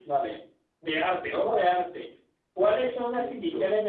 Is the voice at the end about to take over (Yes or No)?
No